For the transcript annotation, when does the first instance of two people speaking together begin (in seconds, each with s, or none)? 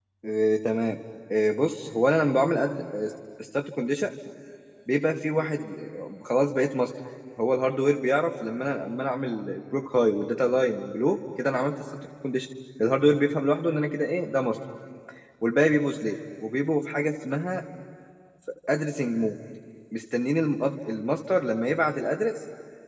none